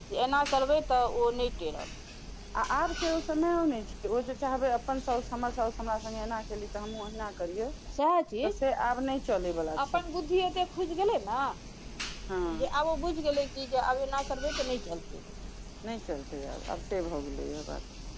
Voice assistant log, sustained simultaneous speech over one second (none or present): none